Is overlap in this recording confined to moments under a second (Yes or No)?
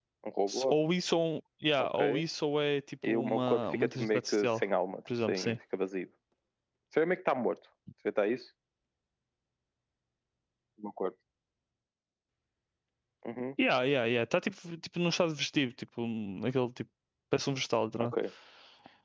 No